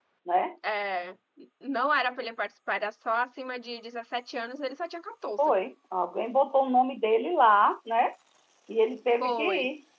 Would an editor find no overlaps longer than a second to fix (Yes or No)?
Yes